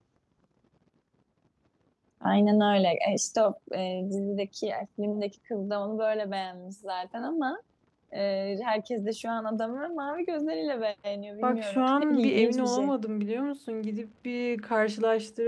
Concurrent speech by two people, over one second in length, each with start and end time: 11.4-12.9

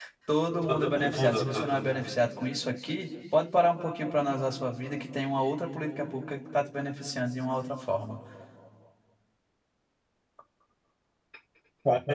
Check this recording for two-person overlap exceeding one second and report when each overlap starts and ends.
0.6-2.1

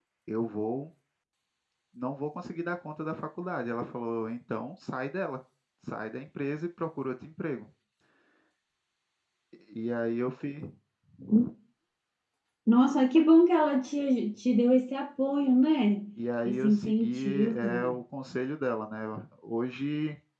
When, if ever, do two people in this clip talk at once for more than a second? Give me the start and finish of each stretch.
16.4-18.0

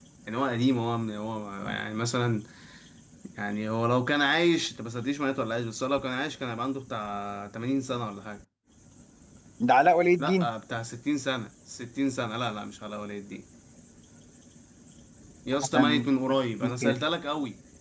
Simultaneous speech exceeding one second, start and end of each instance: 15.6-17.0

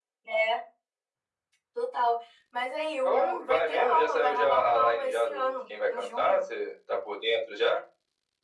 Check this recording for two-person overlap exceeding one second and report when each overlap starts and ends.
3.0-6.5

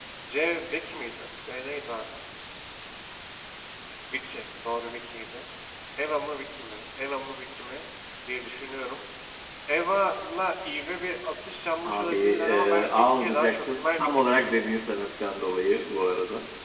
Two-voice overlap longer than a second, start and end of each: 11.8-14.7

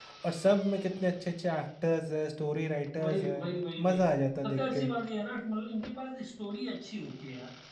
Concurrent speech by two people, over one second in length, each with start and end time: none

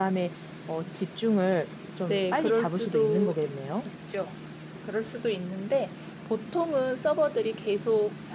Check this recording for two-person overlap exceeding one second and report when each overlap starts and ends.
2.1-3.4

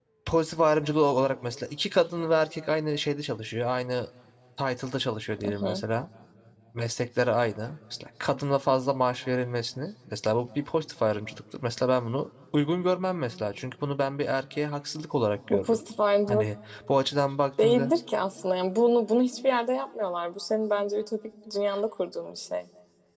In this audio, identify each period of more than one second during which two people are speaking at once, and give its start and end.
none

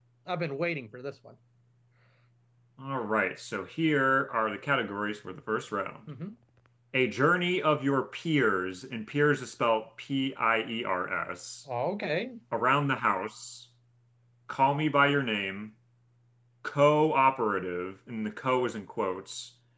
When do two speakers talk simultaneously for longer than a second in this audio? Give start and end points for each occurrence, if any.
none

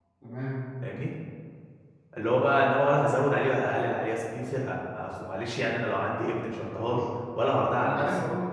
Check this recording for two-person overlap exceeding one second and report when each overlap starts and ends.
none

